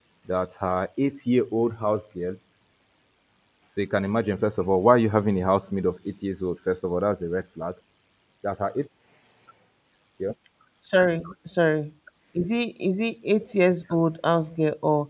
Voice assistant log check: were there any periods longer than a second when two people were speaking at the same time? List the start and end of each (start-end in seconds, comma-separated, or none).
none